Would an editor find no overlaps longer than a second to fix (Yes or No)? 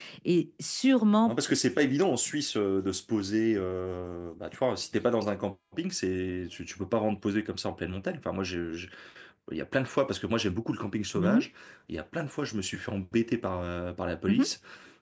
Yes